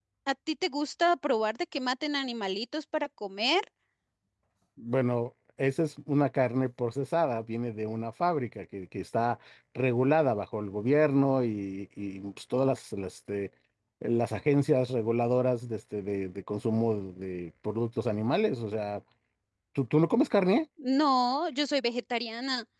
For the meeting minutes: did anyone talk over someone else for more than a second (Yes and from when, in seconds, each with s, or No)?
No